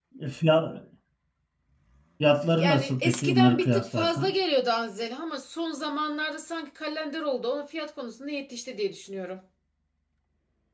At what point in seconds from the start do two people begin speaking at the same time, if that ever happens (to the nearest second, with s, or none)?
3 s